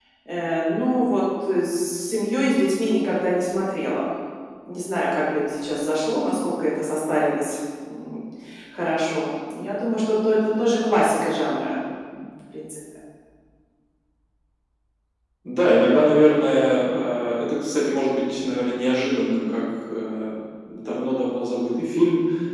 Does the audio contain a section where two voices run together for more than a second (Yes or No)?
No